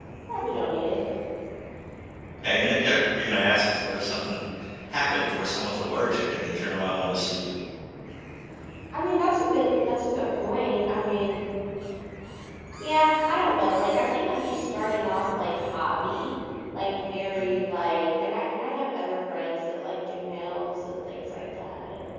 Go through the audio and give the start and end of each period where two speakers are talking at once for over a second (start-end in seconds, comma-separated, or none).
none